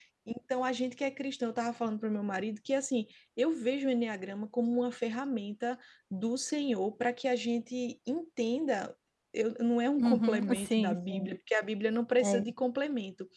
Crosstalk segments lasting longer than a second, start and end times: 10.0-11.3

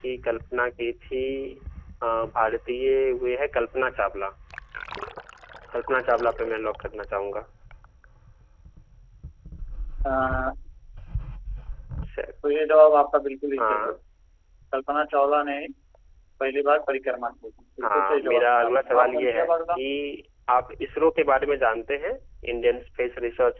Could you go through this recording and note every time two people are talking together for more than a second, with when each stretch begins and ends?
17.8-19.8

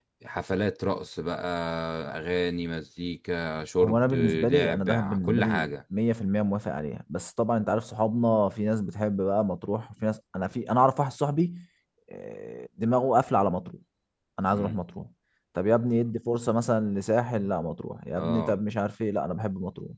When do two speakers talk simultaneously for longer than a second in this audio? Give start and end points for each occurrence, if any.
3.8-5.7

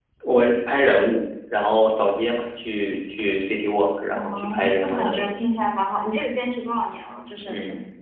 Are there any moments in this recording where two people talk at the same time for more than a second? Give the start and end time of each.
4.1-5.4

